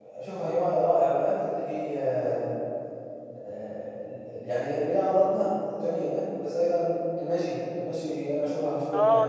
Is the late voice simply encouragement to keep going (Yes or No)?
No